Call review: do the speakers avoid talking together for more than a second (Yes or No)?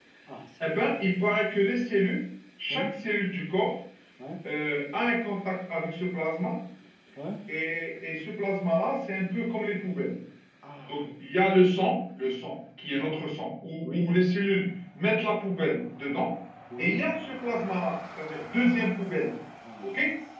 Yes